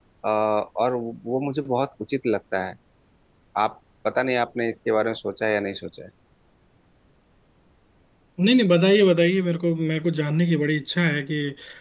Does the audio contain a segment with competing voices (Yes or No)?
No